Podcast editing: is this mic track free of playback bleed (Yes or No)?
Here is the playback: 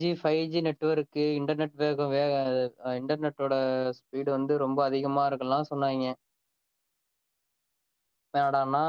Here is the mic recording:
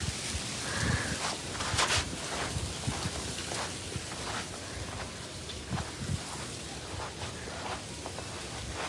Yes